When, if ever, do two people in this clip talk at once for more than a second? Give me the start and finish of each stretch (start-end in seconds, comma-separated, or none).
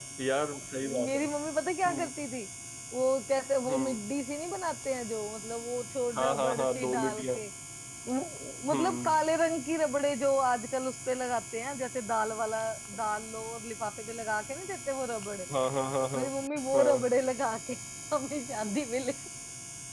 6.2-7.4